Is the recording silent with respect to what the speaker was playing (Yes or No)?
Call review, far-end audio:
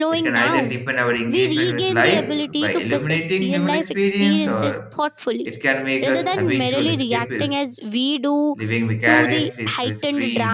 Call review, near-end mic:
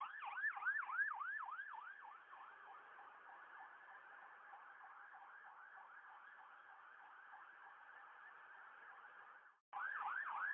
Yes